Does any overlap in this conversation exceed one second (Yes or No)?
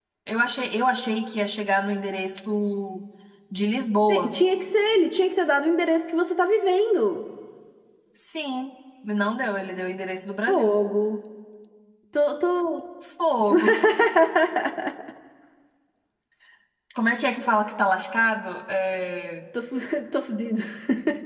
No